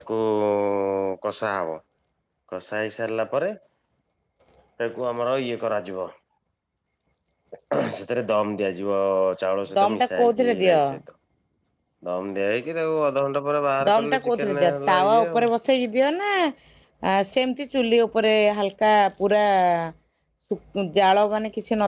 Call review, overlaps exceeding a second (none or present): present